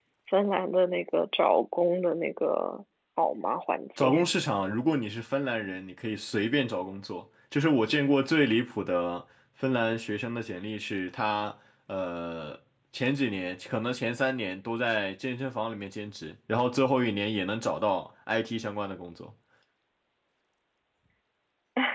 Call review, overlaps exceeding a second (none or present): none